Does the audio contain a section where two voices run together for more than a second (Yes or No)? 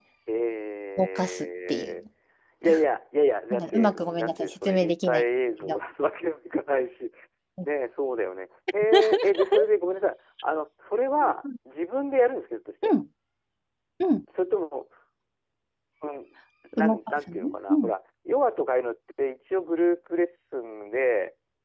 Yes